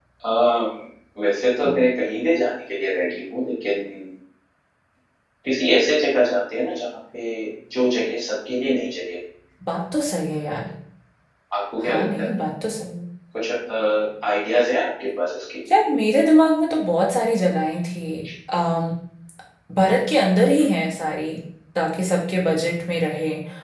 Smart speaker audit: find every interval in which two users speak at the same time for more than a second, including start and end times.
none

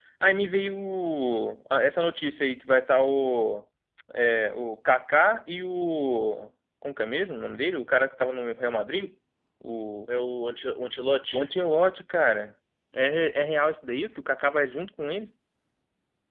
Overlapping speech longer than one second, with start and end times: none

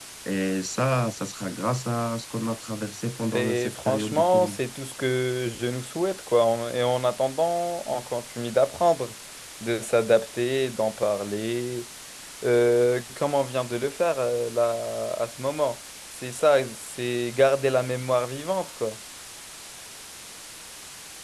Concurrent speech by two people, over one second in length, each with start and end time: 3.2-4.6

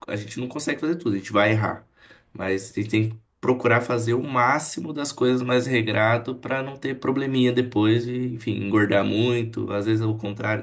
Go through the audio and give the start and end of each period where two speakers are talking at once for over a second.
none

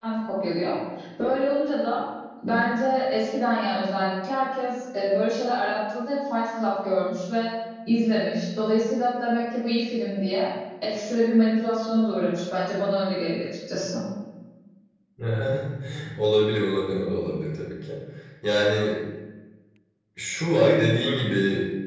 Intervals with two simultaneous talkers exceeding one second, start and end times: none

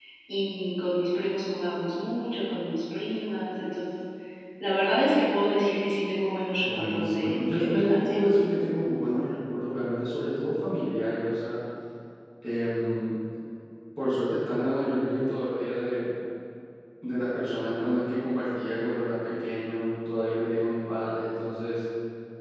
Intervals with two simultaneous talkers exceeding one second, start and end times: 6.6-8.2

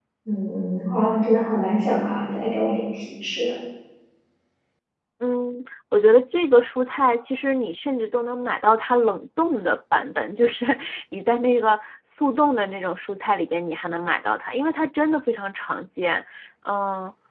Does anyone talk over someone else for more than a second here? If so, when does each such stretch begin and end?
none

